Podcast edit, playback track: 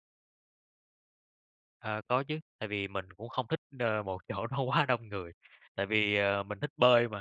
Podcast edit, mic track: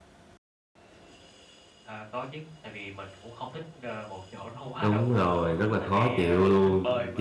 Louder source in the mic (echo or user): user